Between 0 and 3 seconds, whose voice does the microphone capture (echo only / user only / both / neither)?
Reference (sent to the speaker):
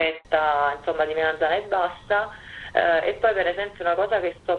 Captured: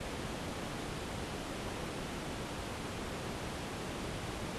neither